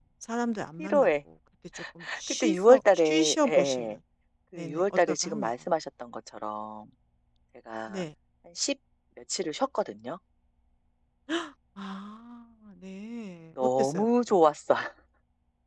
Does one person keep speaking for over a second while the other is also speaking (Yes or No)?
Yes